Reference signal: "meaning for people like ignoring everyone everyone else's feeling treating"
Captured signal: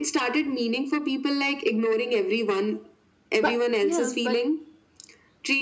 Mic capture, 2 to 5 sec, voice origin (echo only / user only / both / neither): both